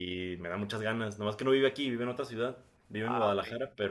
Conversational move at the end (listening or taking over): listening